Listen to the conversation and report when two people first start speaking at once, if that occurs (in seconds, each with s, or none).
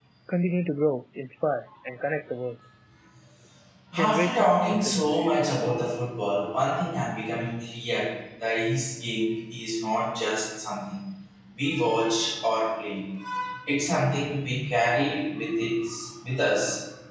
4.0 s